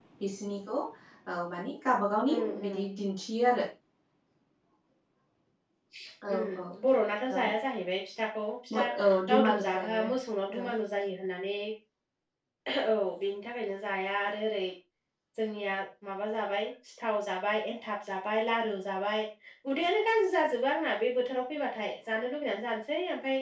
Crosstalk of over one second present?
Yes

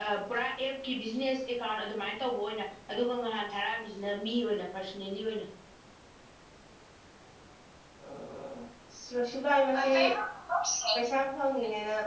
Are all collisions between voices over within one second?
Yes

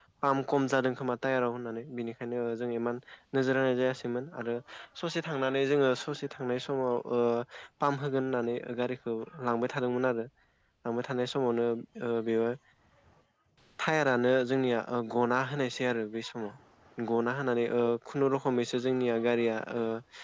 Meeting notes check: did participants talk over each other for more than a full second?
No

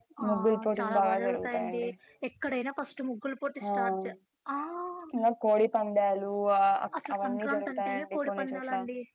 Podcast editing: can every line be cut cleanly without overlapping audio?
No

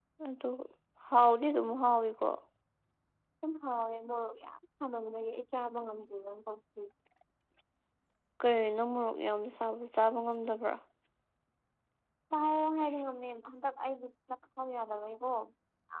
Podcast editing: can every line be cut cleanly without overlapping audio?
Yes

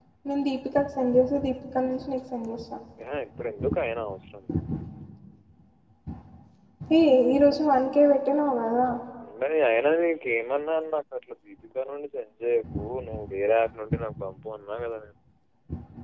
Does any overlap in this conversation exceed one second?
No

